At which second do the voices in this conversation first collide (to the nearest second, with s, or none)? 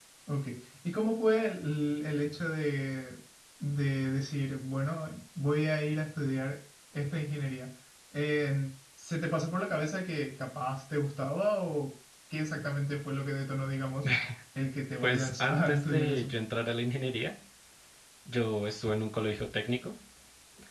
15 s